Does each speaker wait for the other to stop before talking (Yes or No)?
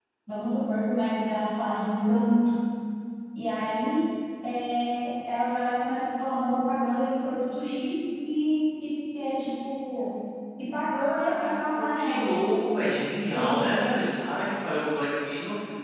No